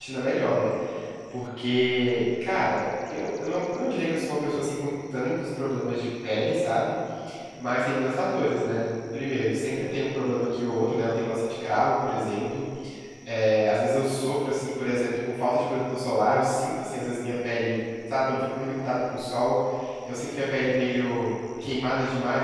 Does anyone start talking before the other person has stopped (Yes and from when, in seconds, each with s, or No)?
No